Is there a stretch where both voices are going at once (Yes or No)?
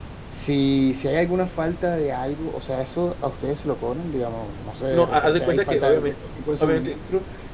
Yes